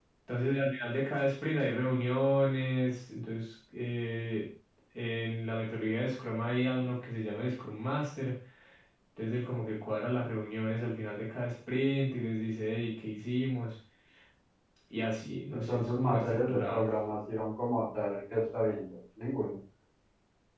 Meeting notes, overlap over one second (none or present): present